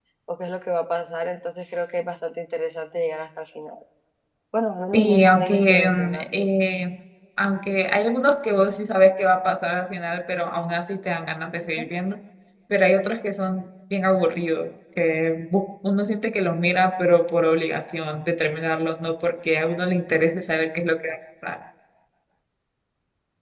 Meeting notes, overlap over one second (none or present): present